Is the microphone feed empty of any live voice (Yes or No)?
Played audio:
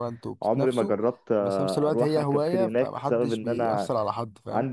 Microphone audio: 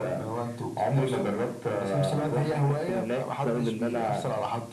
Yes